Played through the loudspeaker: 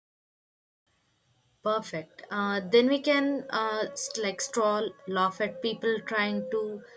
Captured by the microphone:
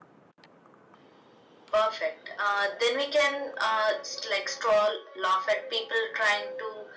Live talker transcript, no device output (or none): none